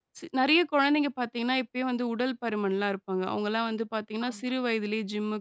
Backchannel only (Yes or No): Yes